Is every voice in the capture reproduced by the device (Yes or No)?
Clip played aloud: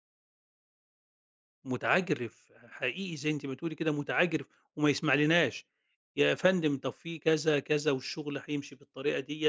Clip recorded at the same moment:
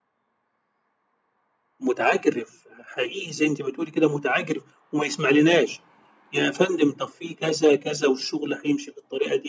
Yes